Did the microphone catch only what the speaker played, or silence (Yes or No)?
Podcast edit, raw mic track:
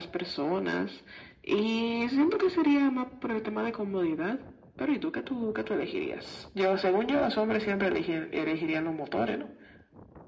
Yes